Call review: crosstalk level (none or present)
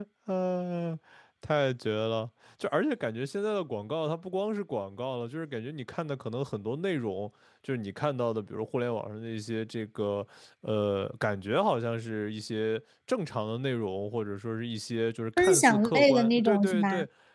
present